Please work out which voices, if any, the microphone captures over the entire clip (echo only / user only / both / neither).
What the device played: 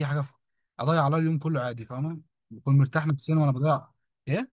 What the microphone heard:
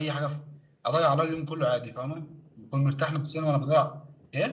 echo only